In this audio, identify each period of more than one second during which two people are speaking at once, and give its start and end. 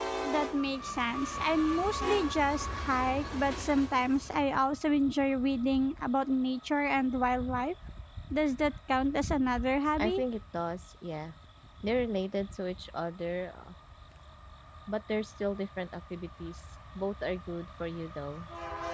none

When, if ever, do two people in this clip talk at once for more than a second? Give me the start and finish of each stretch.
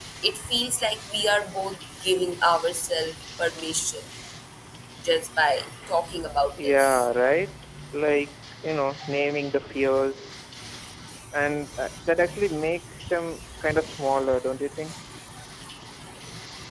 none

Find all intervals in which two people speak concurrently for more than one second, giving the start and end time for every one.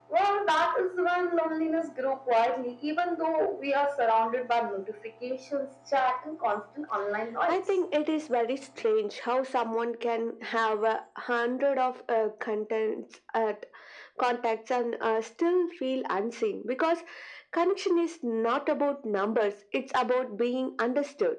none

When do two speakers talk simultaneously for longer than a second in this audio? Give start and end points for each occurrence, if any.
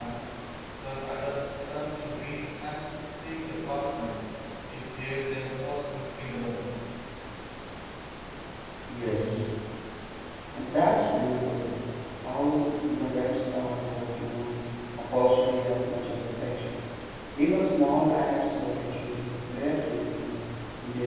none

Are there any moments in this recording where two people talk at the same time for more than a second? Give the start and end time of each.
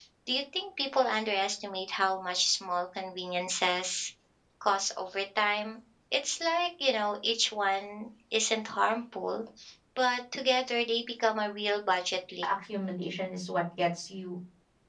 none

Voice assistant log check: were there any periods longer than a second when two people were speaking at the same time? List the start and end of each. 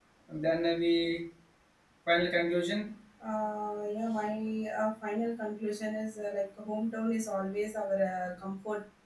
none

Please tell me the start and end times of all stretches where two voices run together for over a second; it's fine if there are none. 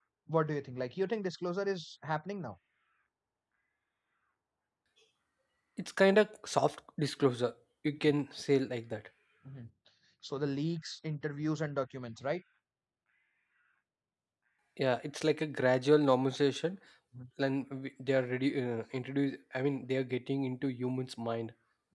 none

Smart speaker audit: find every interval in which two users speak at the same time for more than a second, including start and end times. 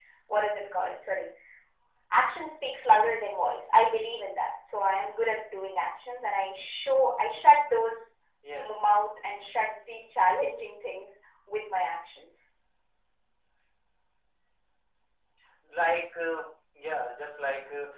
none

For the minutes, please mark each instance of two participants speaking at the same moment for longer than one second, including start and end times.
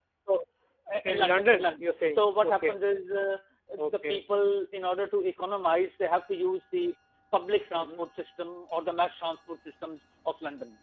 1.0-2.7

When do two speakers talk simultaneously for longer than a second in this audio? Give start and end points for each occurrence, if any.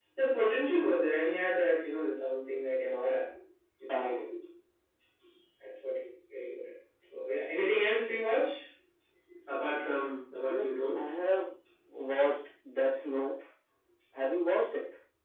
none

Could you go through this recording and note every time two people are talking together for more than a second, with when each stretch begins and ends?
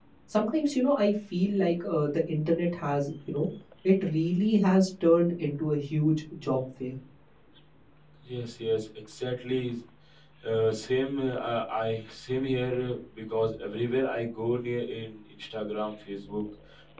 none

